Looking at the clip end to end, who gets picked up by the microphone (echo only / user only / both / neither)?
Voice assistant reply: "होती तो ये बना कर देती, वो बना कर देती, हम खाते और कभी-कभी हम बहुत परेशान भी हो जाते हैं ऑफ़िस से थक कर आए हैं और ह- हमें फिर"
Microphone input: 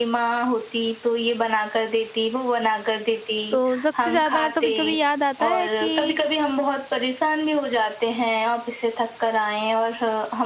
both